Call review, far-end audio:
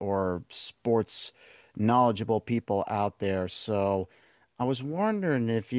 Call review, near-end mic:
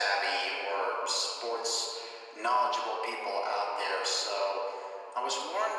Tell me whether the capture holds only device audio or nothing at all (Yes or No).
Yes